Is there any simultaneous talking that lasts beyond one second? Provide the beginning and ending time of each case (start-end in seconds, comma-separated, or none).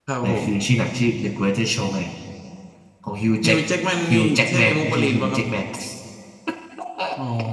4.1-5.4